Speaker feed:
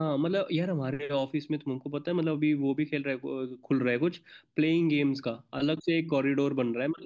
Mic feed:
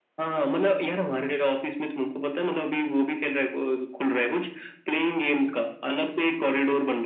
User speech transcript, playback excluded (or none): none